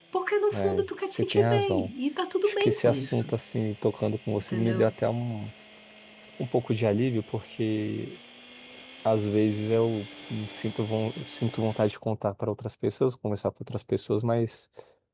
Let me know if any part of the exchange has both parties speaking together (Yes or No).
Yes